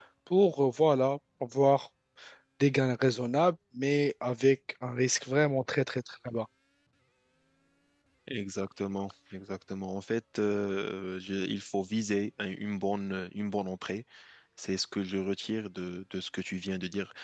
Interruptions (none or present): none